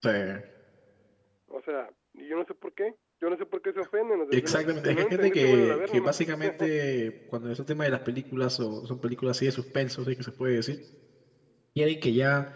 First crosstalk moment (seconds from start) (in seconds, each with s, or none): 4.3 s